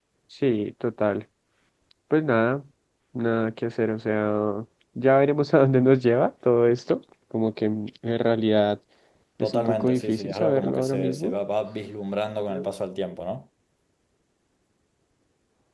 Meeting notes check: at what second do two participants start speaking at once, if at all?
9.4 s

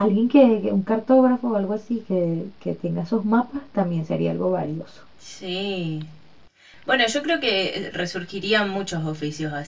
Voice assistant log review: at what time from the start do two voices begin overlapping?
none

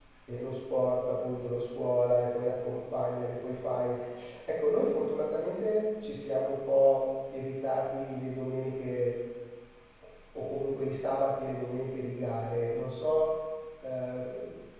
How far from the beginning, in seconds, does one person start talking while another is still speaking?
none

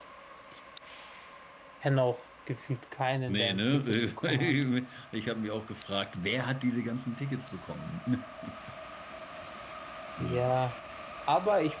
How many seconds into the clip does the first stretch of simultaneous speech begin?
3.3 s

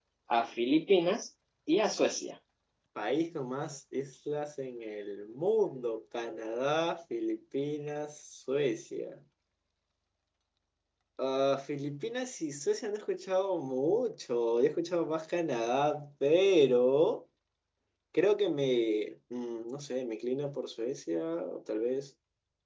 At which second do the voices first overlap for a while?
none

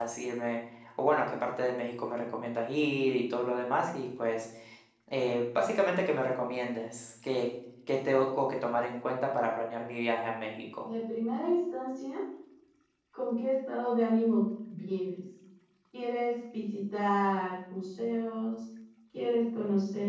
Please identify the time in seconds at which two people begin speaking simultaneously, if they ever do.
none

